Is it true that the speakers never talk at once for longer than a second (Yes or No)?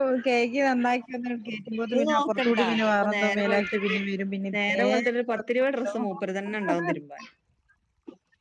No